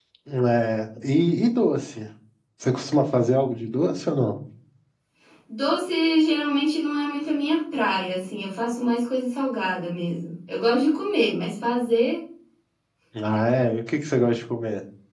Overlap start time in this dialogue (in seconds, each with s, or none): none